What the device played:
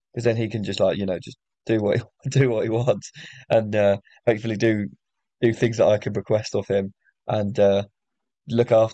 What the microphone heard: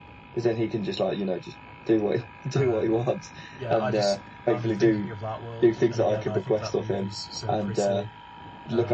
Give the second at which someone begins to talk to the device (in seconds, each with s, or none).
2.5 s